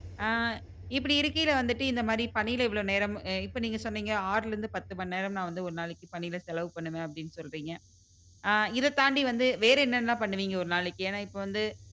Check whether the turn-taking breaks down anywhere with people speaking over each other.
No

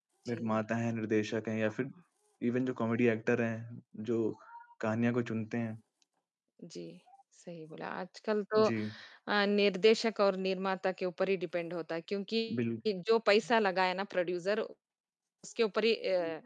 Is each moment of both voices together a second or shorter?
Yes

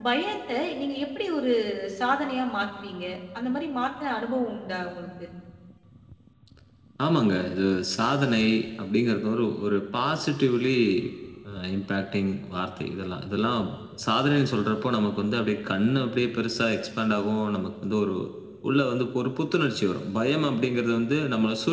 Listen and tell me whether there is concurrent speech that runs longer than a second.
No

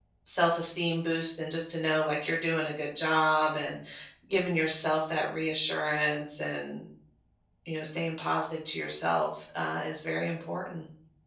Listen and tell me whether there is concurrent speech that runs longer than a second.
No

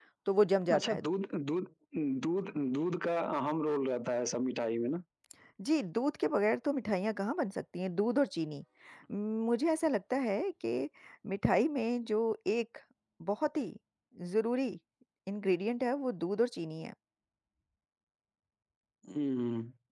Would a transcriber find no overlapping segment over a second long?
Yes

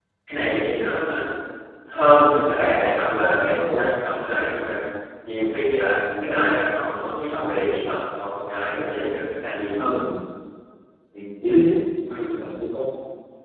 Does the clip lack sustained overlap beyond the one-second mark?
No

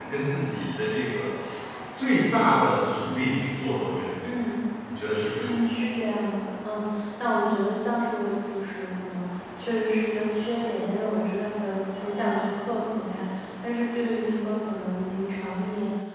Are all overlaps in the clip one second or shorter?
Yes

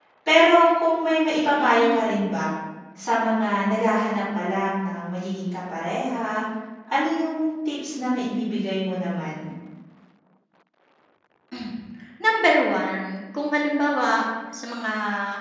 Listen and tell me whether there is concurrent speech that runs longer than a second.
No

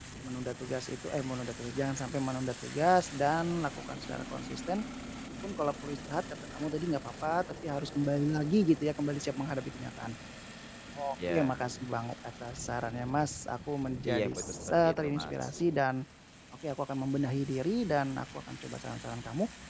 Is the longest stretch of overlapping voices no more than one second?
No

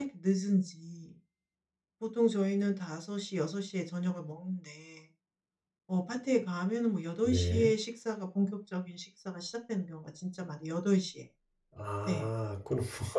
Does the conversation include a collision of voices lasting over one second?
No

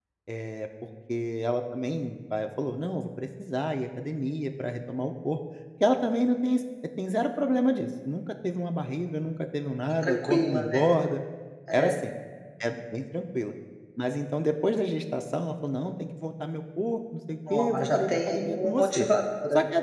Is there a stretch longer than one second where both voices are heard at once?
Yes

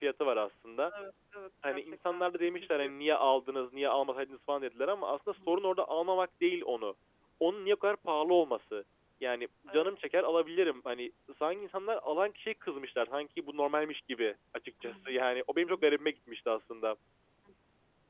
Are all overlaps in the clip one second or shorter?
No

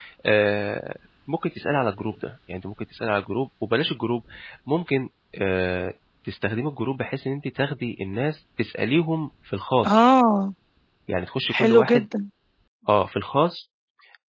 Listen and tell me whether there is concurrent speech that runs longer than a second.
No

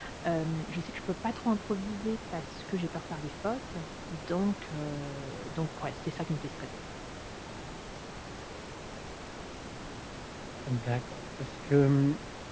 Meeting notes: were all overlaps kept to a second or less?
Yes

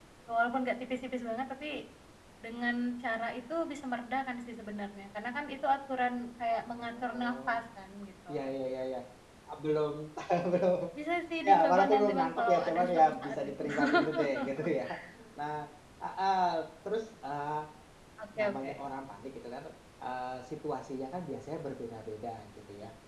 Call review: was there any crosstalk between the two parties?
Yes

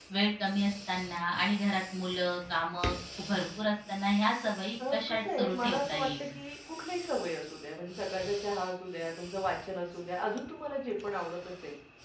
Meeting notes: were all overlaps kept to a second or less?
No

